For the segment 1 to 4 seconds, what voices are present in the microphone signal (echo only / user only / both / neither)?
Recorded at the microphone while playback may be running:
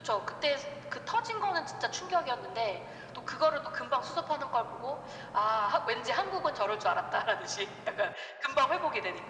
echo only